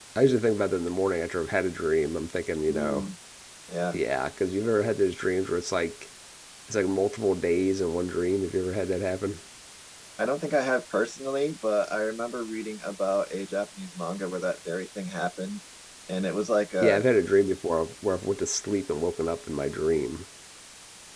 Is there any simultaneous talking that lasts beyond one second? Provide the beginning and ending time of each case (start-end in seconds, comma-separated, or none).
none